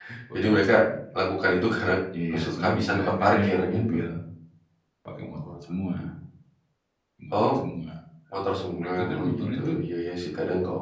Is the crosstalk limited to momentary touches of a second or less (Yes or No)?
No